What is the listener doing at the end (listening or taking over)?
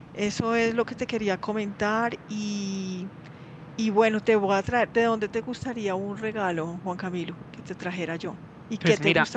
taking over